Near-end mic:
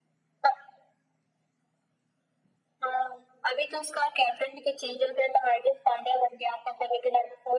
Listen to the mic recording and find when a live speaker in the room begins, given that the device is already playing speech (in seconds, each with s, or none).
none